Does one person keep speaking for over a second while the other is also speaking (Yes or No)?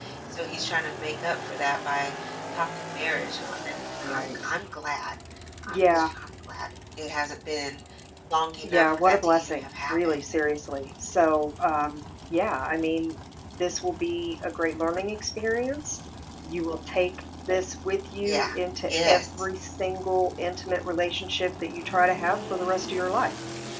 Yes